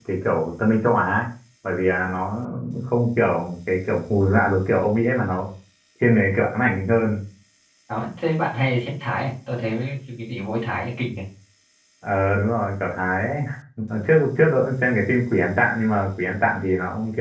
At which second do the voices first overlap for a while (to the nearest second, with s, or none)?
none